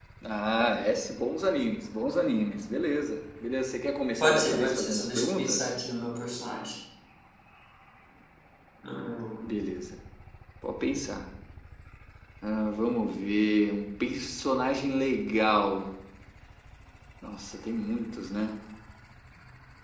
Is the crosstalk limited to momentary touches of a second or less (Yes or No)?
No